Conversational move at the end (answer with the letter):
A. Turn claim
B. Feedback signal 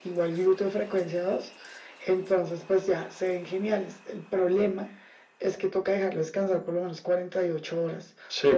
A